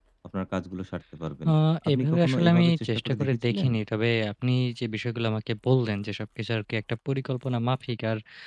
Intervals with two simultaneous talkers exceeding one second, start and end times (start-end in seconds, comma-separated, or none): 1.9-3.7